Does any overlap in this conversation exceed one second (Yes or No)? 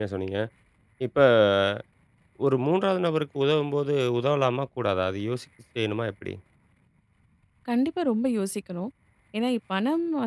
No